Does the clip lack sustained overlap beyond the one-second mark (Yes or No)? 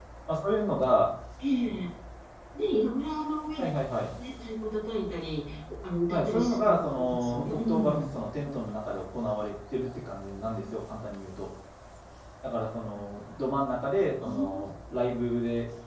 No